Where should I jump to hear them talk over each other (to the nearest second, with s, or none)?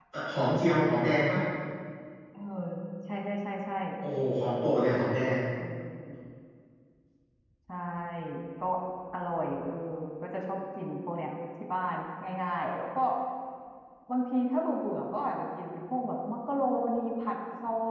none